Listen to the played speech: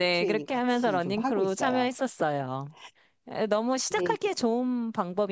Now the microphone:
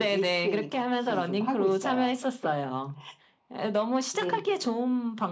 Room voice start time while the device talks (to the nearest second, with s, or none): none